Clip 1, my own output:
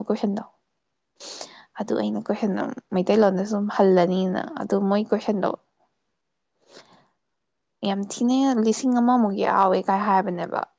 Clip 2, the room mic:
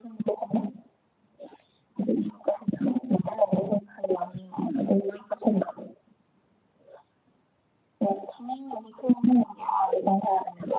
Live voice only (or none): none